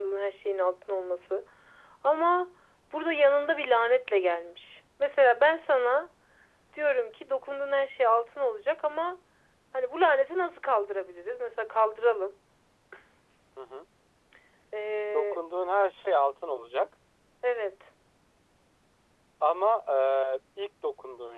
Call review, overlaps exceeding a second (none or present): none